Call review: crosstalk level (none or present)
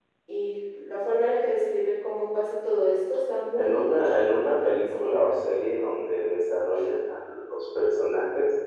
present